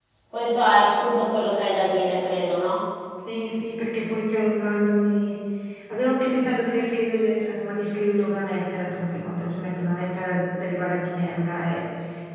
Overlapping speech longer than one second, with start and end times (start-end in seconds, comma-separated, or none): none